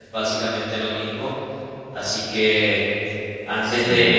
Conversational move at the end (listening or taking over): listening